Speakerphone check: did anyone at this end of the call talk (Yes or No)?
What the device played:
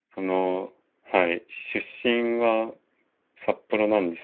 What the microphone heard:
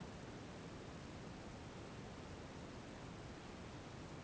No